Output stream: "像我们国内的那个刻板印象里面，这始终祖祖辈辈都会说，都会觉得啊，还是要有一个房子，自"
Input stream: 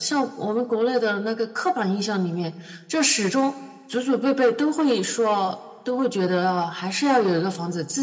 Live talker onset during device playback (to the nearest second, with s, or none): none